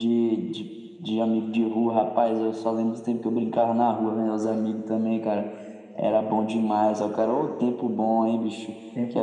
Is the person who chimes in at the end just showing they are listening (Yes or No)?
Yes